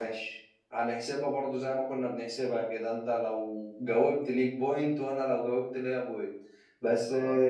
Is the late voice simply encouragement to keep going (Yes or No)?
Yes